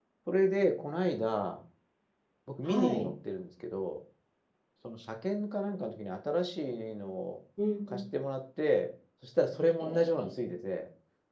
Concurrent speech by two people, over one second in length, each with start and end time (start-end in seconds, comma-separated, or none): none